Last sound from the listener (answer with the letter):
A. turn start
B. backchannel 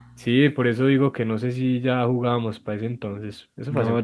A